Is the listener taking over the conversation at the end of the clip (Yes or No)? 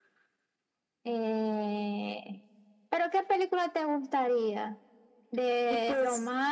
No